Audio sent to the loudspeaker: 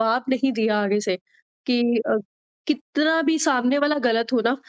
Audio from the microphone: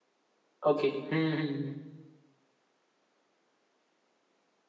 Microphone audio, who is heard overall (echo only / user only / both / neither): user only